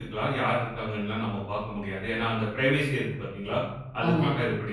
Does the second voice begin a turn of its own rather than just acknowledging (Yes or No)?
No